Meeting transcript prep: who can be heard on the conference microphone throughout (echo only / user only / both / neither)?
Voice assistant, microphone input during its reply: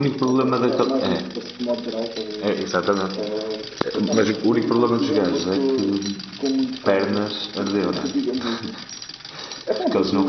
both